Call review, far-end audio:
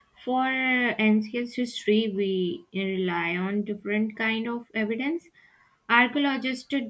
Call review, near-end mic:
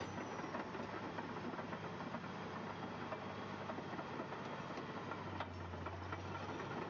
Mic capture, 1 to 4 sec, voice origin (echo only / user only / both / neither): neither